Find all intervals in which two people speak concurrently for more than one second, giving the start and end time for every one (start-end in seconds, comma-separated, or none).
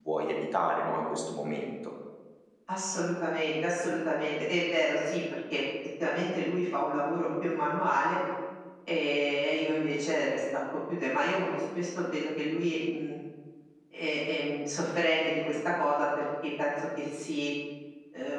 none